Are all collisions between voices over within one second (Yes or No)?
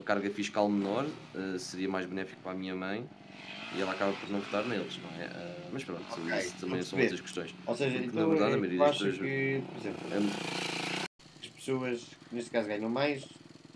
No